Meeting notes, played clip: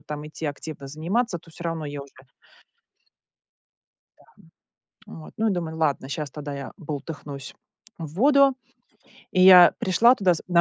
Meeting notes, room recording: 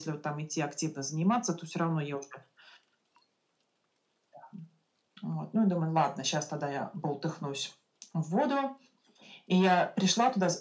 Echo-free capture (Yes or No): No